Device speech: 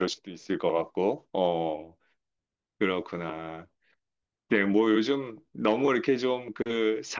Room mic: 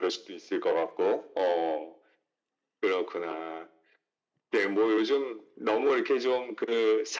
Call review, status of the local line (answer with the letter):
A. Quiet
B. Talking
A